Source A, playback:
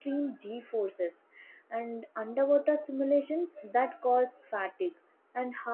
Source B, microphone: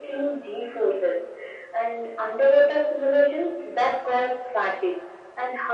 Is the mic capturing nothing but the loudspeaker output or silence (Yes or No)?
Yes